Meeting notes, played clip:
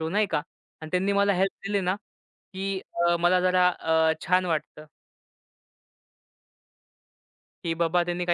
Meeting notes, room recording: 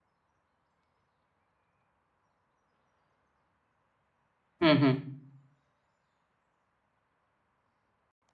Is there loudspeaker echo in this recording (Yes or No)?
No